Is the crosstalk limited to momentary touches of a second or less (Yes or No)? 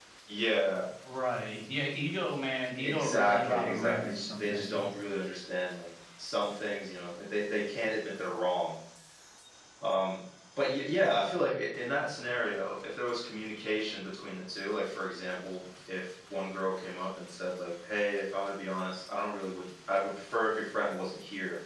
No